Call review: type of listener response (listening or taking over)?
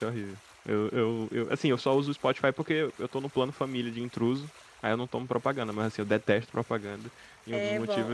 taking over